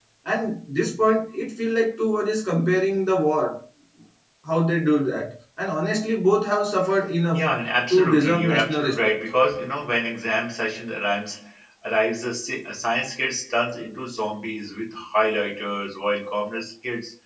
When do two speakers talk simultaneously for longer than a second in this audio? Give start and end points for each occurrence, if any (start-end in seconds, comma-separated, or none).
7.9-9.2